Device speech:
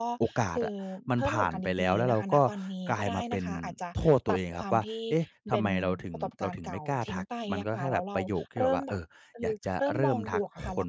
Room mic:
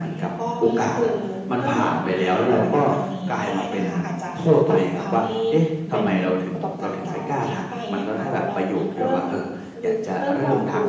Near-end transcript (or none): none